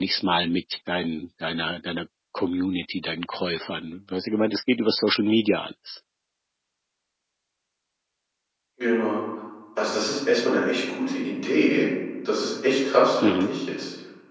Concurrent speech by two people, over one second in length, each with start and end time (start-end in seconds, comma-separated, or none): none